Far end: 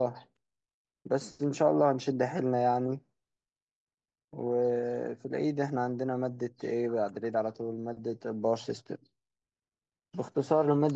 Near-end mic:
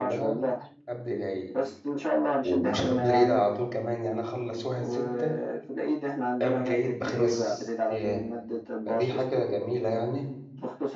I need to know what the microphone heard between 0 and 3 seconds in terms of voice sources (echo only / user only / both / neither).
both